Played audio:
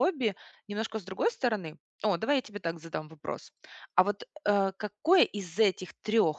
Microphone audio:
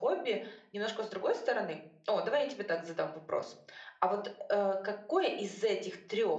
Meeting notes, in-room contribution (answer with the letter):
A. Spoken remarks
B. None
B